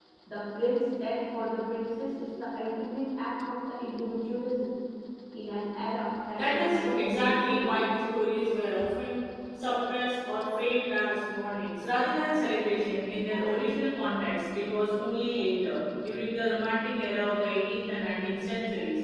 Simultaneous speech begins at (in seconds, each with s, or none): 6.3 s